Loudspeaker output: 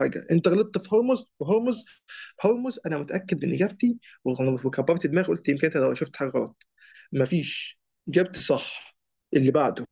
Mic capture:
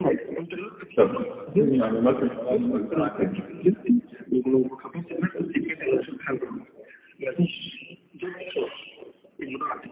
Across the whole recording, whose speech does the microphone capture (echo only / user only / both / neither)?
both